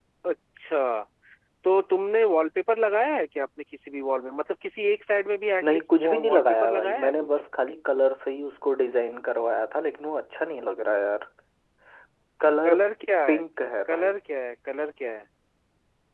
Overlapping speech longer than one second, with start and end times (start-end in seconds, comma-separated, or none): 5.6-7.3